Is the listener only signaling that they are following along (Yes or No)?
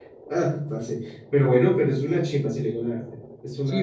No